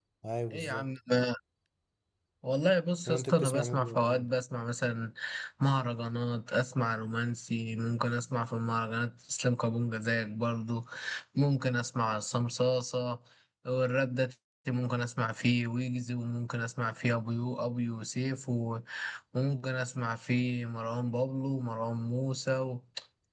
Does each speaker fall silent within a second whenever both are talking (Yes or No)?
No